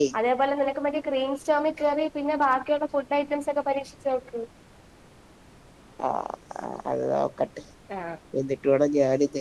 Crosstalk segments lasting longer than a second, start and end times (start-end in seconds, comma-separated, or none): none